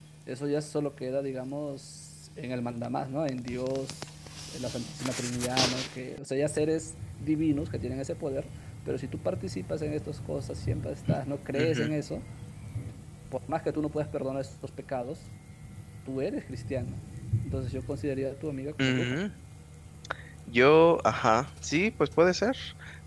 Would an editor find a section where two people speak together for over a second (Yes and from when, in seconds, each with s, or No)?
No